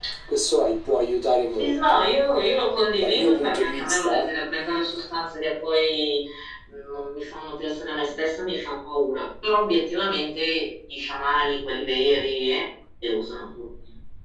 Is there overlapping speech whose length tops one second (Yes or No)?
Yes